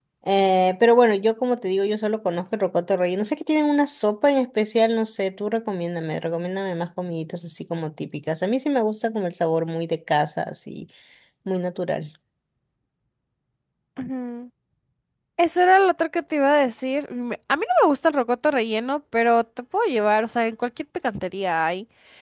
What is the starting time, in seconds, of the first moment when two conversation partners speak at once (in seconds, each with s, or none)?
none